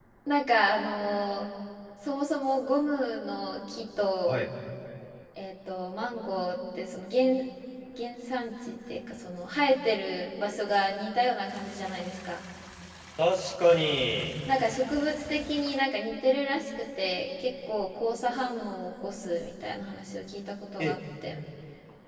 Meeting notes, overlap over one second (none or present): none